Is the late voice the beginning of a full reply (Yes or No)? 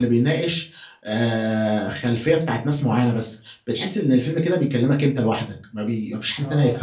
Yes